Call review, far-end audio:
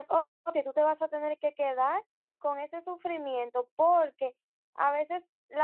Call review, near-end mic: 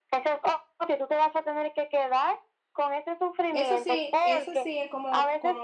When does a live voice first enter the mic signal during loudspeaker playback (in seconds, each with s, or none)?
3.5 s